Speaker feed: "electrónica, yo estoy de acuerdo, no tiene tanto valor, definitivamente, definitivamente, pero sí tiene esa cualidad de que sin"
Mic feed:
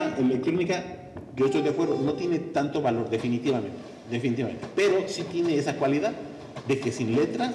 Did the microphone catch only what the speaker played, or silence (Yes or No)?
Yes